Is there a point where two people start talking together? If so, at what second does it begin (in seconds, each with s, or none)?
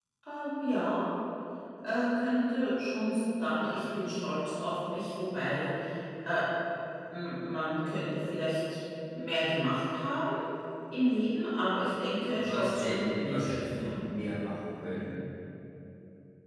12.3 s